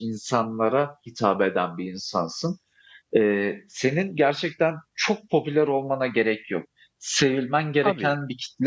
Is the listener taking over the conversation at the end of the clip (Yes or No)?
No